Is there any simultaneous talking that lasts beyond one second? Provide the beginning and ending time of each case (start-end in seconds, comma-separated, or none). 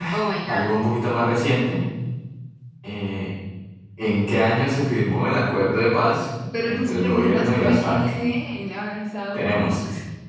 6.6-8.0